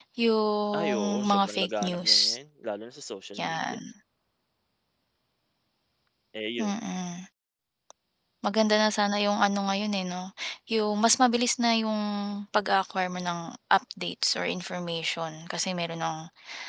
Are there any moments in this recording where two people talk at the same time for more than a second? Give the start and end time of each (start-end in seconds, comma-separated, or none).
0.8-2.1